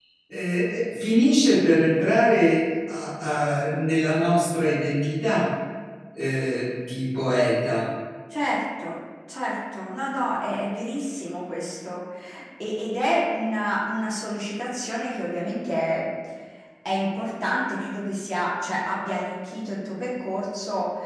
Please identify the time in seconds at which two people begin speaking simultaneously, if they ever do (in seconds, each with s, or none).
none